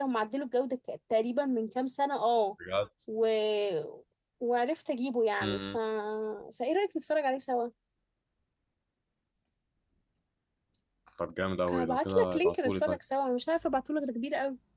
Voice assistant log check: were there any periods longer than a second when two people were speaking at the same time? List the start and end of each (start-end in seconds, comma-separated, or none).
11.7-13.0